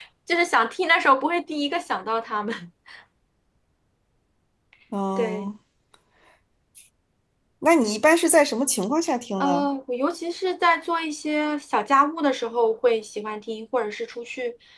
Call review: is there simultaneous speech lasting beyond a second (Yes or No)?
No